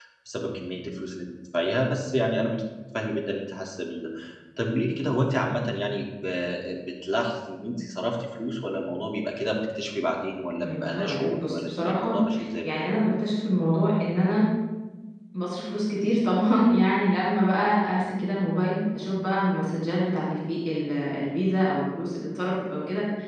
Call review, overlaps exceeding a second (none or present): present